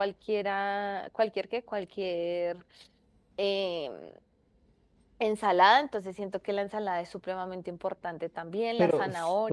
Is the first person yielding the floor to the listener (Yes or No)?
Yes